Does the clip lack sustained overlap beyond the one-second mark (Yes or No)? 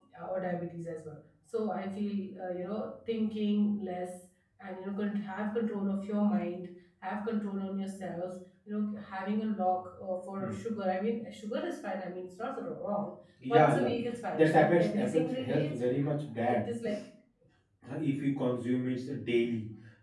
No